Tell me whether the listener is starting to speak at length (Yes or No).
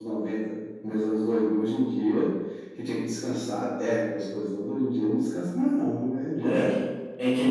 Yes